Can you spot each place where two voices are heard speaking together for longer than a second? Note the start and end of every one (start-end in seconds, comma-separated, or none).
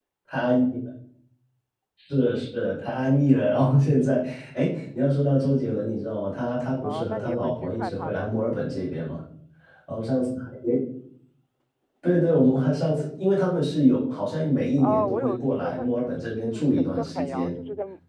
6.8-8.3, 14.8-17.5